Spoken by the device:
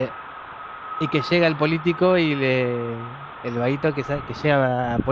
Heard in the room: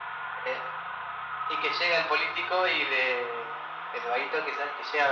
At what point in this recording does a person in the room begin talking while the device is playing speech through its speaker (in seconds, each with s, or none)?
none